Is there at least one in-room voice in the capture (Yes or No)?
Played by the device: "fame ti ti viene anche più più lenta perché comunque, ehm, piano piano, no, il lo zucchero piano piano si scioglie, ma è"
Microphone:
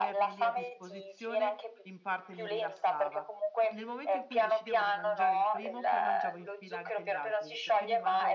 Yes